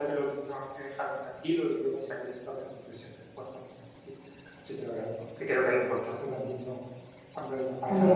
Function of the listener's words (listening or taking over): listening